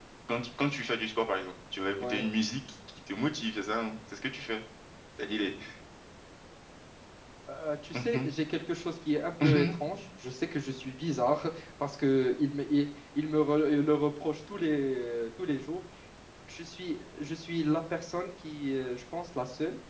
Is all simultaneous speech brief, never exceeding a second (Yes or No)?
Yes